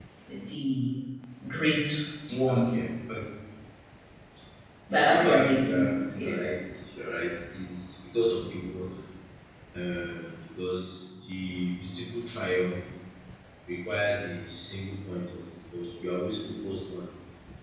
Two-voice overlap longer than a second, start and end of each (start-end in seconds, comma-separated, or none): 5.0-6.3